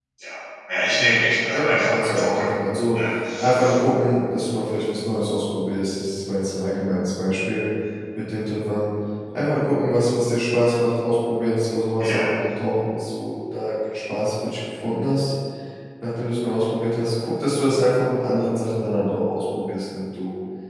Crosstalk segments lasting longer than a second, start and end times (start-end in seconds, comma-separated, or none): 0.9-2.5